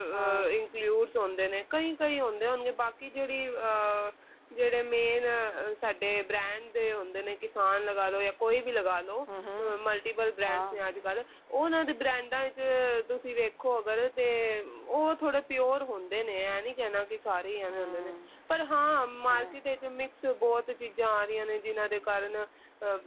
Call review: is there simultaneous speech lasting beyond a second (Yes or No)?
No